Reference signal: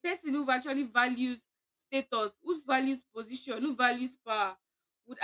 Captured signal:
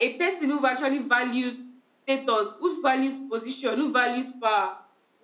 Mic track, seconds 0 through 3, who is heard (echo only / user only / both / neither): echo only